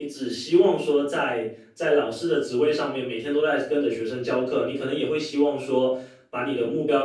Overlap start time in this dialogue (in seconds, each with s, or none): none